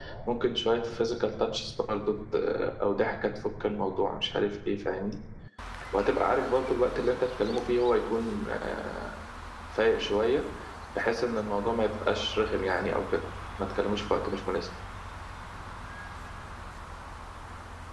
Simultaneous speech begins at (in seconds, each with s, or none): none